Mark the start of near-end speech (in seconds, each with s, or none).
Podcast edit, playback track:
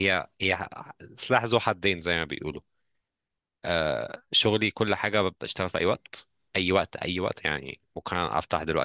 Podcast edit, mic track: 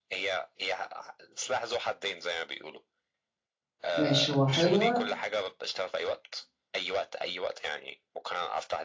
4.0 s